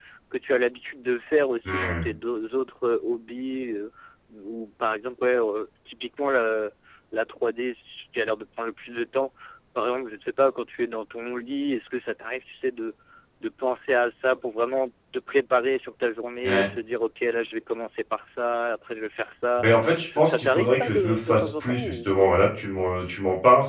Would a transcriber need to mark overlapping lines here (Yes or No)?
Yes